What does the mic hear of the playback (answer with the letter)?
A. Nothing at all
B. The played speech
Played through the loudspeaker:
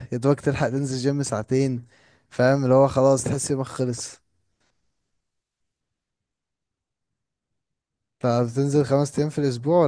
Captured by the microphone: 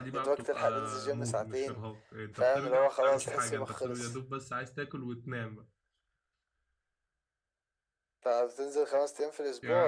B